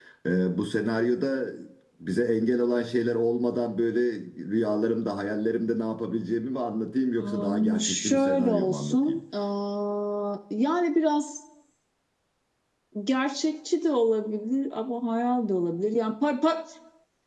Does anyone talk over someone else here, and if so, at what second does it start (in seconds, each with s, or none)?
7.2 s